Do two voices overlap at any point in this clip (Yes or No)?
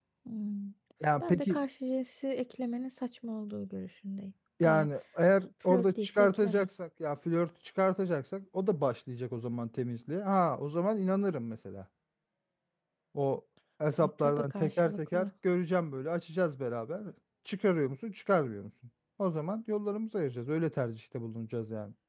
Yes